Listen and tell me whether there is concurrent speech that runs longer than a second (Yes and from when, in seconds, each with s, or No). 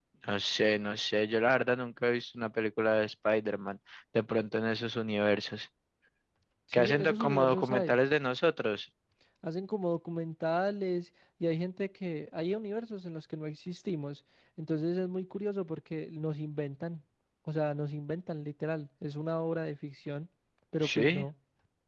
Yes, from 6.7 s